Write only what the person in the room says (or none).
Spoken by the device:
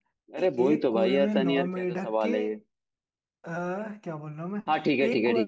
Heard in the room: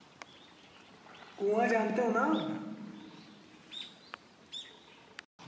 कुआं जानते हो ना आप